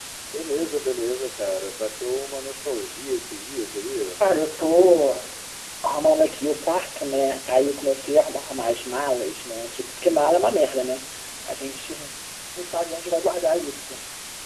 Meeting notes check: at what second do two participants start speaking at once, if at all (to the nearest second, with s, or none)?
none